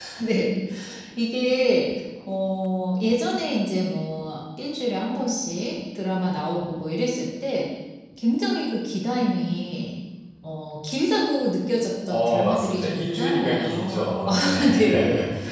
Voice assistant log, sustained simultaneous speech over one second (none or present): present